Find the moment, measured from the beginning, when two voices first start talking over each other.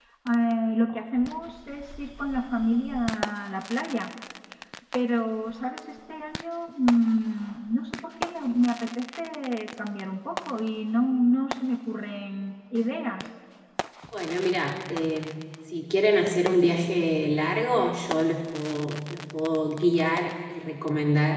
none

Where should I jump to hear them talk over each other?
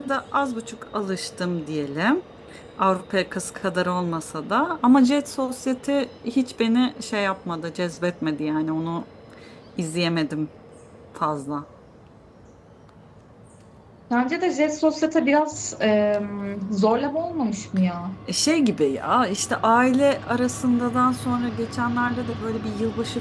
none

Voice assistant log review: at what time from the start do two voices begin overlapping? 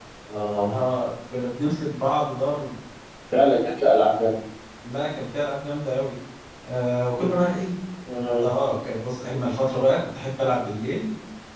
none

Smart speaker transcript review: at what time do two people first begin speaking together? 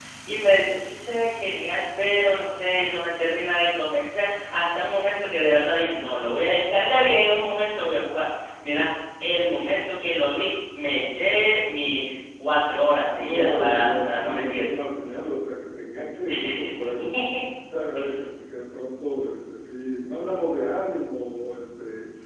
13 s

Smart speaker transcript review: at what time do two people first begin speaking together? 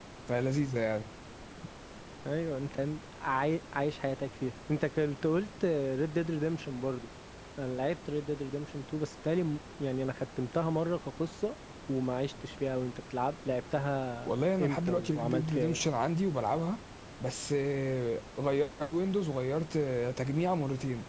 14 s

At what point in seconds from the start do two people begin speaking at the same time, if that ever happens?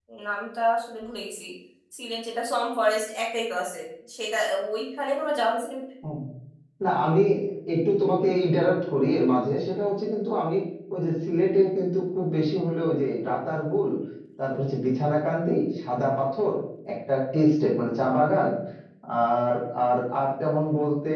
none

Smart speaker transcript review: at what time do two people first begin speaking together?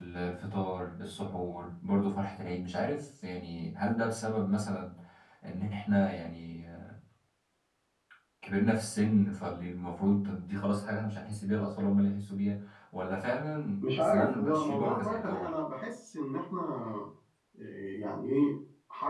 14 s

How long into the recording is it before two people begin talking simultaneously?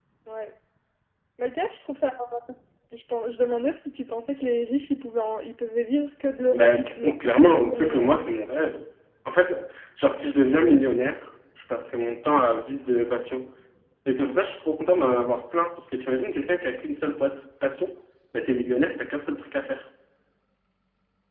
7 s

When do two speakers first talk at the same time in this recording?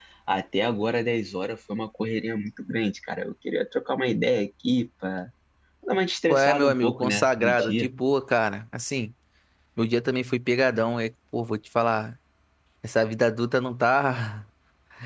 6 s

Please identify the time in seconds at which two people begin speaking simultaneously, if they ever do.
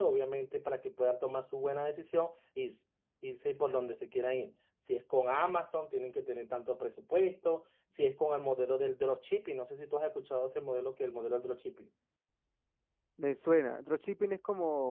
none

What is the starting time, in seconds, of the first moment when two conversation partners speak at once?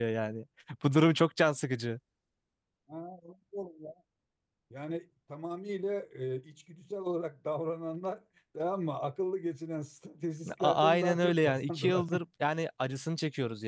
10 s

